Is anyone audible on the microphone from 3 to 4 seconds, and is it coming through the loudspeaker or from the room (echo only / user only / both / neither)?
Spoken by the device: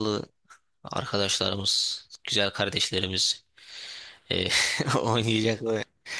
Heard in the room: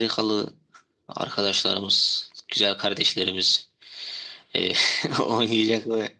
echo only